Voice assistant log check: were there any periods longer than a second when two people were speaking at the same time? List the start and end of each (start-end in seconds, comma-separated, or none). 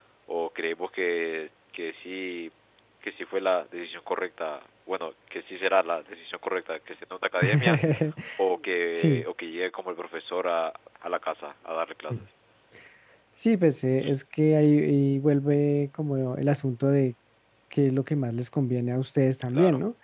none